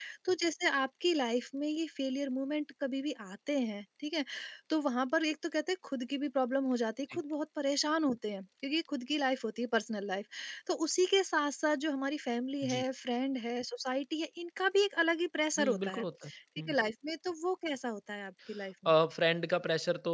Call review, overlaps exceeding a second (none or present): none